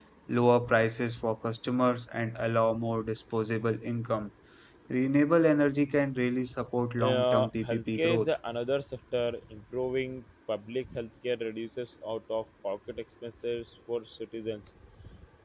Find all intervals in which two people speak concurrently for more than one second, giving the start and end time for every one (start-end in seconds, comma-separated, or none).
7.0-8.2